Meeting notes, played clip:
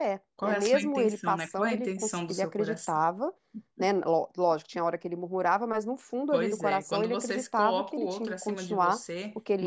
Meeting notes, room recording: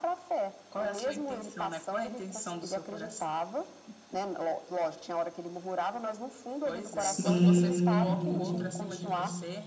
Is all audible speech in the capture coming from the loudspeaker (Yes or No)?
No